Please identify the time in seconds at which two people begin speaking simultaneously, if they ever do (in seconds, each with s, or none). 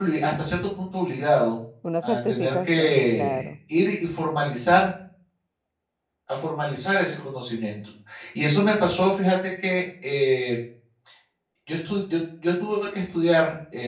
2.0 s